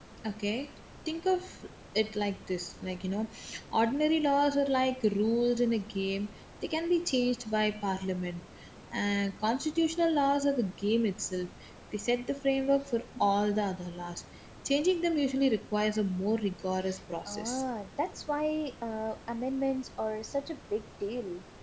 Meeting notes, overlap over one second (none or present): none